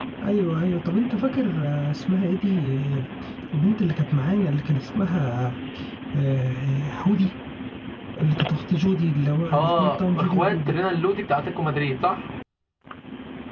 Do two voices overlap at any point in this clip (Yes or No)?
Yes